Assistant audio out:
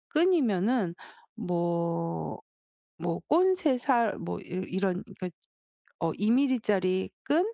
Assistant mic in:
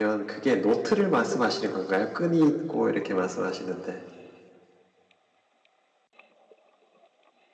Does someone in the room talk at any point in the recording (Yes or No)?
Yes